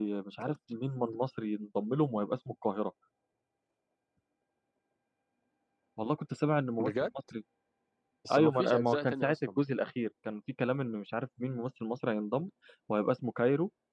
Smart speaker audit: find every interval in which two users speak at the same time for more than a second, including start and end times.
8.3-9.6

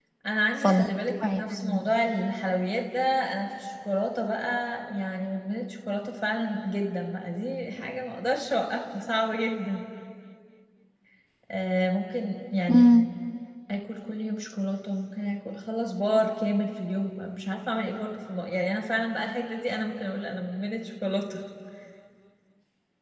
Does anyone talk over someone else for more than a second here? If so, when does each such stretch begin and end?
0.6-1.9

